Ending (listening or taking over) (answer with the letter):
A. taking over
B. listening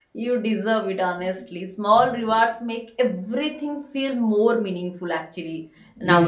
A